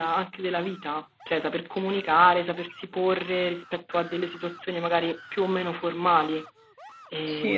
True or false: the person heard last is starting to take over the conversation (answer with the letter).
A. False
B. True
A